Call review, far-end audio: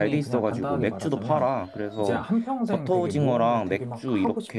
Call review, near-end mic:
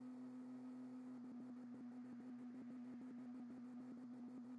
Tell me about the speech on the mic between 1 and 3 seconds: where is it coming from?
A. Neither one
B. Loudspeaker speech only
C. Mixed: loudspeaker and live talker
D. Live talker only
A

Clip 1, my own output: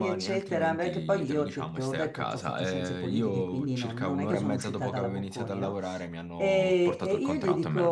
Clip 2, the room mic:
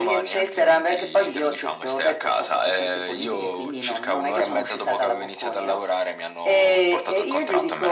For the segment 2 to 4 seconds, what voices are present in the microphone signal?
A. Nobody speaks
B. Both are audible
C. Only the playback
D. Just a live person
C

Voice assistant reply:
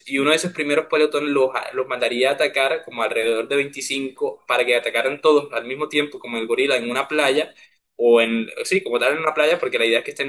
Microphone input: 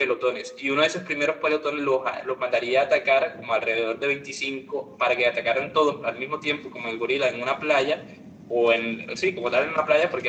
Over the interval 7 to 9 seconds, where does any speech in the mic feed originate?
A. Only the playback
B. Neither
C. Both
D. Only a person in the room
A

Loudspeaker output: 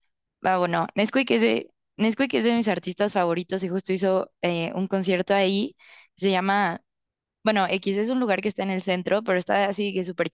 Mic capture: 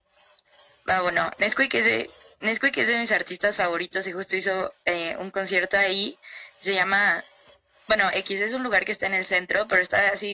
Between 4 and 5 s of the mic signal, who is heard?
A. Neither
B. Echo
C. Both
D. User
B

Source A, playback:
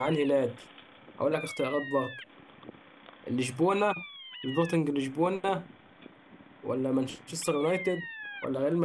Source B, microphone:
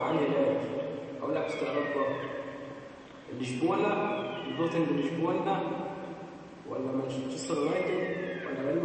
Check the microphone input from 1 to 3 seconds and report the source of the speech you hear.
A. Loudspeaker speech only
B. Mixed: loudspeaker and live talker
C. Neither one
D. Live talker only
A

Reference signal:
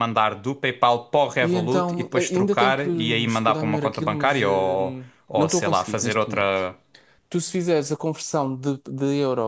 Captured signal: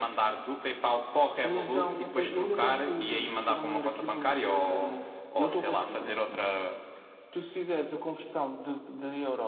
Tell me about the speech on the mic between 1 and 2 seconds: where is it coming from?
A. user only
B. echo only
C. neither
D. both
B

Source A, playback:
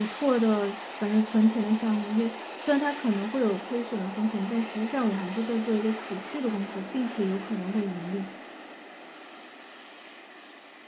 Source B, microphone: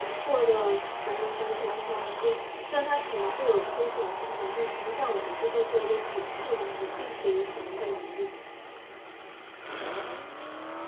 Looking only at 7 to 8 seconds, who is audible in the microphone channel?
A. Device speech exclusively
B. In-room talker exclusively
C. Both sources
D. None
A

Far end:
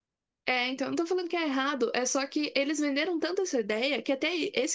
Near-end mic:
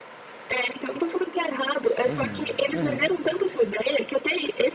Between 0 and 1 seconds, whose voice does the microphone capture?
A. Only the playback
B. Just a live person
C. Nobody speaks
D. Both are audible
A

